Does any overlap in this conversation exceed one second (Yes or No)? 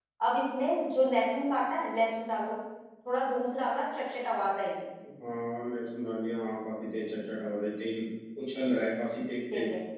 No